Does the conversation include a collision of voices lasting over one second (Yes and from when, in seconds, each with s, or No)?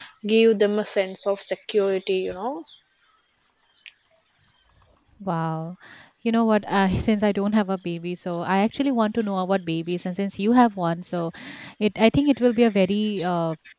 No